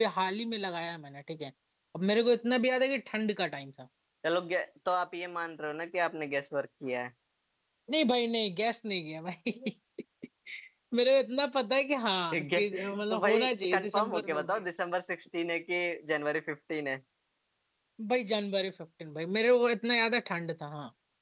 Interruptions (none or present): present